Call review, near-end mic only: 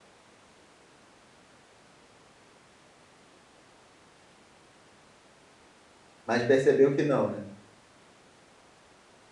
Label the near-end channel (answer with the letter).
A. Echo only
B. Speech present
B